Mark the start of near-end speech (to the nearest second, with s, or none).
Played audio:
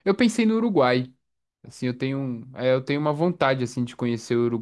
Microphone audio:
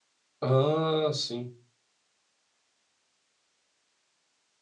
0 s